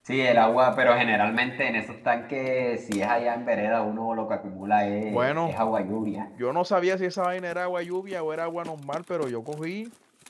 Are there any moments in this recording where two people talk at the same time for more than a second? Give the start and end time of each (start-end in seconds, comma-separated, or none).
none